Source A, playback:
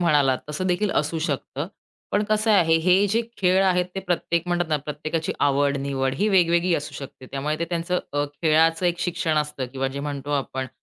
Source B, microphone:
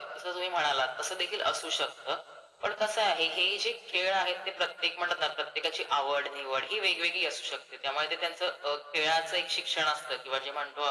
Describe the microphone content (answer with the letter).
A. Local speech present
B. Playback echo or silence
B